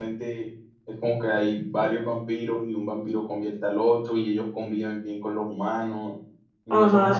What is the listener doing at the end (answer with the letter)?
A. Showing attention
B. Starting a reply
B